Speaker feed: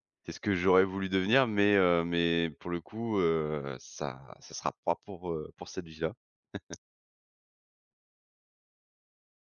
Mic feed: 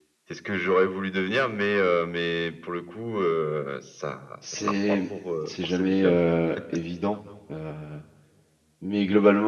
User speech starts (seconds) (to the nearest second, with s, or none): 4 s